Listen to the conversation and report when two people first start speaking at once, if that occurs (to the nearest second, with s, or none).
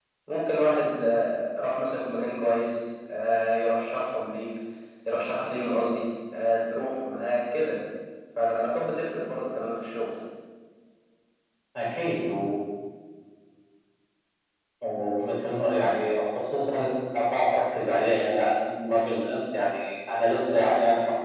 none